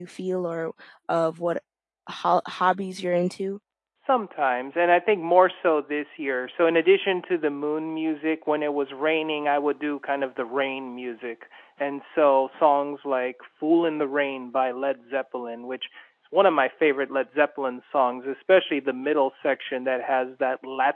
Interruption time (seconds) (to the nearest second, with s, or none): none